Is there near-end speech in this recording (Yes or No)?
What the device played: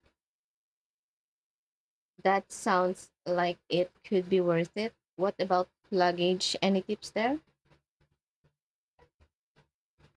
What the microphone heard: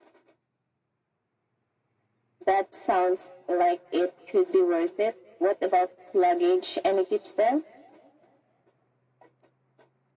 No